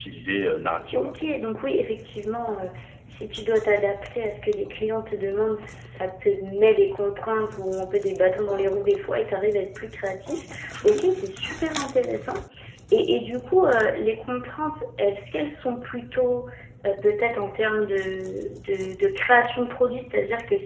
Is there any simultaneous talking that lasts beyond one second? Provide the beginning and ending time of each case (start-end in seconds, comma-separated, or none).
none